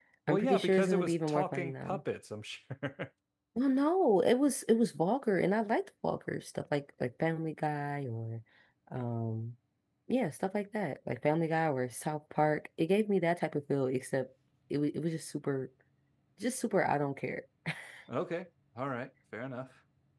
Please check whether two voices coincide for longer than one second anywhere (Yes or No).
Yes